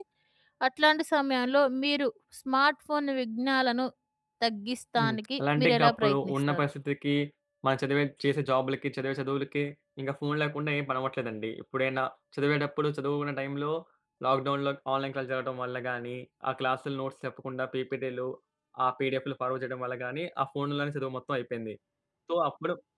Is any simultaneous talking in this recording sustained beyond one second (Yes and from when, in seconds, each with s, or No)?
Yes, from 5.0 s